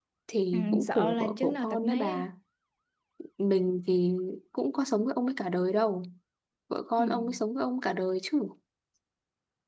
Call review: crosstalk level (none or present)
present